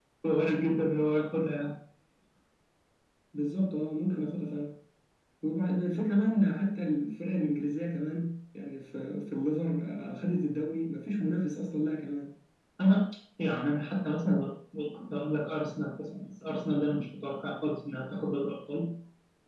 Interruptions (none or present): none